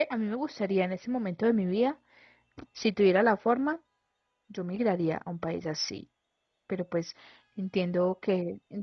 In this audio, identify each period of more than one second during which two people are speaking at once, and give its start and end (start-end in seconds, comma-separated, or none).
none